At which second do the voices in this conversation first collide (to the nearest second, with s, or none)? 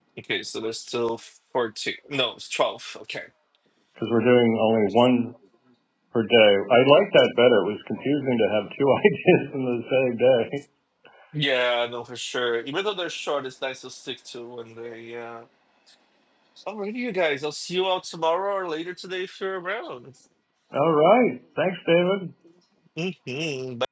none